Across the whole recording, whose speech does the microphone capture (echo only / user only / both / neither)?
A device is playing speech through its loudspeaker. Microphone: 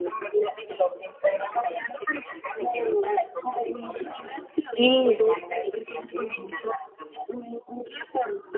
both